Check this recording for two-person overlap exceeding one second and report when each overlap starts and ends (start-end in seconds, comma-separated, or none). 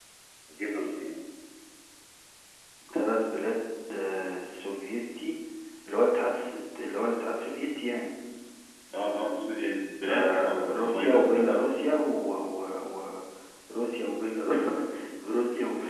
10.1-11.3